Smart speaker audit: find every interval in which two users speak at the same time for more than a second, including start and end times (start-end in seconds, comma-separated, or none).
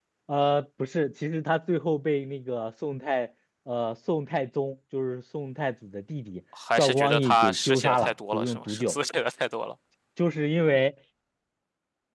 6.8-9.0